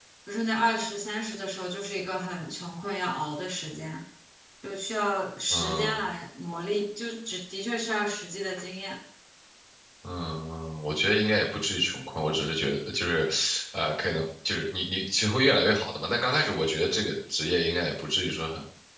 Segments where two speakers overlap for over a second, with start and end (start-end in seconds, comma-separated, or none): none